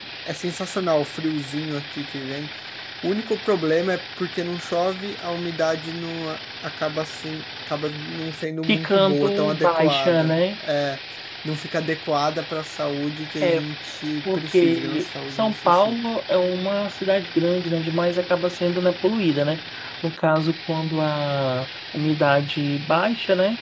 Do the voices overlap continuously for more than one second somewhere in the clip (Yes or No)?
Yes